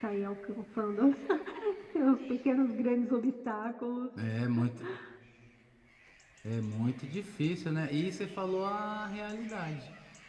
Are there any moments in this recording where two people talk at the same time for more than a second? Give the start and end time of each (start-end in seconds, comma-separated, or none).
none